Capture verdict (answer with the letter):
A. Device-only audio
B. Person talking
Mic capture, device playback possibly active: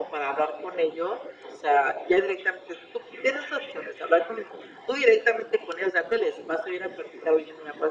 A